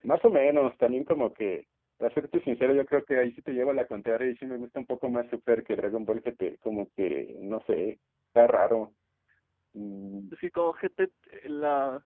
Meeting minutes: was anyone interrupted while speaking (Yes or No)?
No